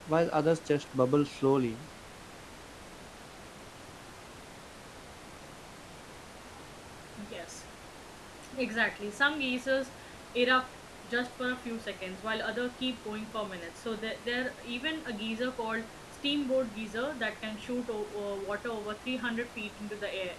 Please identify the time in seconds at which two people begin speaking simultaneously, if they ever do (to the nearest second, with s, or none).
none